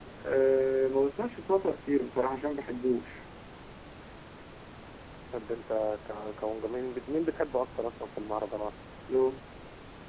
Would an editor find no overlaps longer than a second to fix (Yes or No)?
Yes